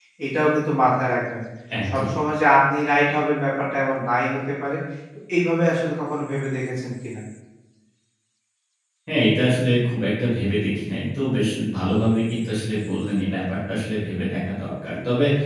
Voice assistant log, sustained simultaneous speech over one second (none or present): none